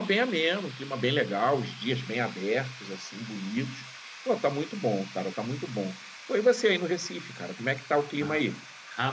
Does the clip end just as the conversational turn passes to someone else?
Yes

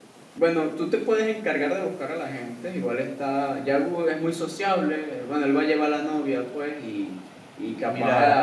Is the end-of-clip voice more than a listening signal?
Yes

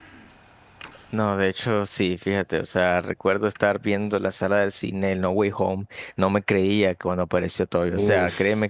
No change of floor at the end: Yes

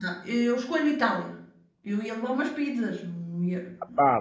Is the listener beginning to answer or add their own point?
Yes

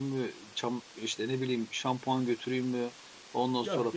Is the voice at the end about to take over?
No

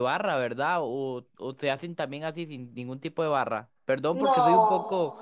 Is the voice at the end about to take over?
No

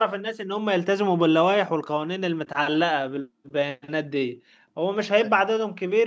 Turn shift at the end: No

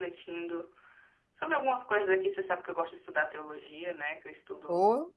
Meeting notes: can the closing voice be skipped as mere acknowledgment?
No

